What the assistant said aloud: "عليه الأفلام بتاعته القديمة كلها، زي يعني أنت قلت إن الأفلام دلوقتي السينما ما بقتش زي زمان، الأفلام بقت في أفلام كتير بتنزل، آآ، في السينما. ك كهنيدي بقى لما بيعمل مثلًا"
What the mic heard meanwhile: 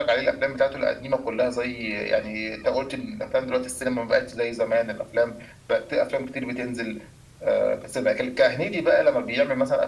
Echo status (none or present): present